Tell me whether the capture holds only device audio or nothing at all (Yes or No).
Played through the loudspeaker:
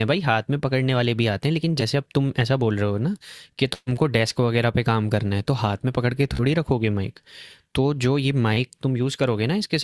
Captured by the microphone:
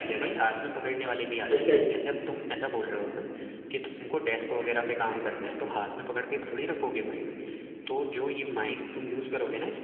No